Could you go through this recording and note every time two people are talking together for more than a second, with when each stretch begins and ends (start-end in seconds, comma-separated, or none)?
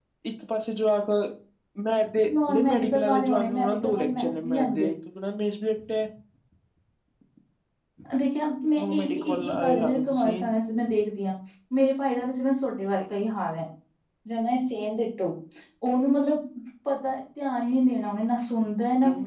2.5-4.9, 8.8-10.4